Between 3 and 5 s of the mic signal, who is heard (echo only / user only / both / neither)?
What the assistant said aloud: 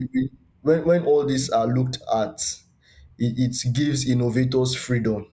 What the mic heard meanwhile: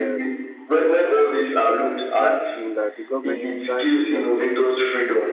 both